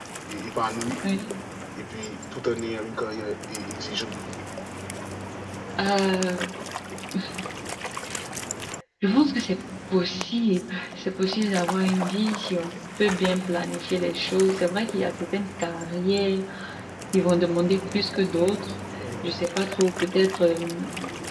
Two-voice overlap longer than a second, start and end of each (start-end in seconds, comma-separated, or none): none